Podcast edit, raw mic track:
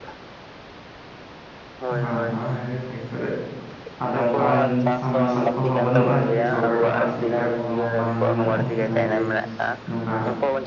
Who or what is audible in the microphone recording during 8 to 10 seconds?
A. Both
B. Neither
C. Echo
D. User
A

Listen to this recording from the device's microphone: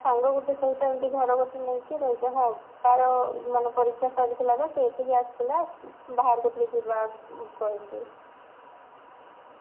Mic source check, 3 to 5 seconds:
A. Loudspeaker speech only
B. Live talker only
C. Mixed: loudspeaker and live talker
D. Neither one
A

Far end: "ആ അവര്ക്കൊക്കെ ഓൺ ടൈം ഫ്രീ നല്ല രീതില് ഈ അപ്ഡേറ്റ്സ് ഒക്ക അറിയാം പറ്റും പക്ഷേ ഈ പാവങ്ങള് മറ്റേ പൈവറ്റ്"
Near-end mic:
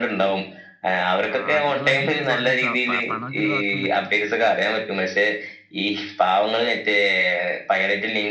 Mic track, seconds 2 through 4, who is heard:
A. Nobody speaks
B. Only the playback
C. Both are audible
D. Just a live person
C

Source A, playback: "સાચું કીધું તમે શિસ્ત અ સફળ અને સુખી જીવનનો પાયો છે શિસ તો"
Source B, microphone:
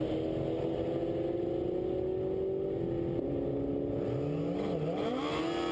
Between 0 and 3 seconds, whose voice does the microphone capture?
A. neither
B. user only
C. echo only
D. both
A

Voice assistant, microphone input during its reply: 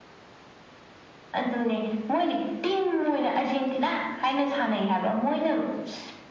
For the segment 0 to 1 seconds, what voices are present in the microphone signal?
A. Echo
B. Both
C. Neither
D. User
C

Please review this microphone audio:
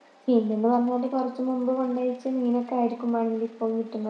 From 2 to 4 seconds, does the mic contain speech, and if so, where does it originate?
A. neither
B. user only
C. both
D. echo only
B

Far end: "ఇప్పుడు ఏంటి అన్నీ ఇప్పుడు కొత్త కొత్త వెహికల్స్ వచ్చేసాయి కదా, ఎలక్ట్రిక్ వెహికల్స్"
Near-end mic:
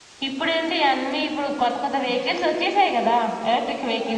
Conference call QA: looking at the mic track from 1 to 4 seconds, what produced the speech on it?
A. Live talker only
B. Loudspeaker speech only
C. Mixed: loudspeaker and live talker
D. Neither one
B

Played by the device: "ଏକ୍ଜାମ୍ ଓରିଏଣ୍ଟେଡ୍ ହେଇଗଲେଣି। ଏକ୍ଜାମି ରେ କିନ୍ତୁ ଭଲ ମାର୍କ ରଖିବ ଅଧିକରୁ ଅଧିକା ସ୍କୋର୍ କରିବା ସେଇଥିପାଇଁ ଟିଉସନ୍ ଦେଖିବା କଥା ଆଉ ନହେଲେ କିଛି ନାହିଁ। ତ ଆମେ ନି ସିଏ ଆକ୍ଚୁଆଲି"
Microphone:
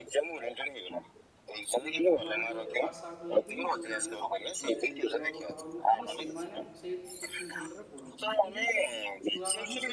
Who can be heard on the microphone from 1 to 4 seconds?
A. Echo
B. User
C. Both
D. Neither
C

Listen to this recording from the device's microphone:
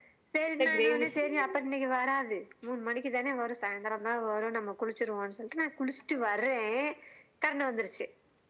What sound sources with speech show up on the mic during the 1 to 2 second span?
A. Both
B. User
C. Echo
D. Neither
A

